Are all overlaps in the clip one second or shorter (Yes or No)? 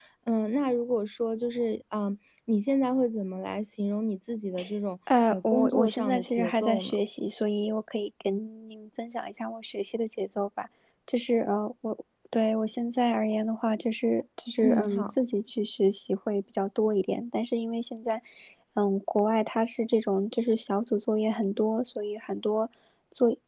No